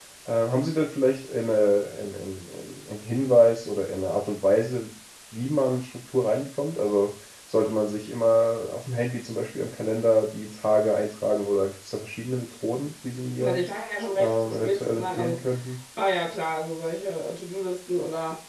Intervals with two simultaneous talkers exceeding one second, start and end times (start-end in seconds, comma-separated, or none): 14.1-15.4